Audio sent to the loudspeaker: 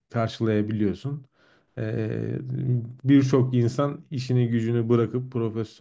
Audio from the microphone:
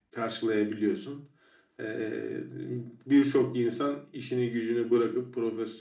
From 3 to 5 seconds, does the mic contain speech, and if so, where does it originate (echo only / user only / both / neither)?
echo only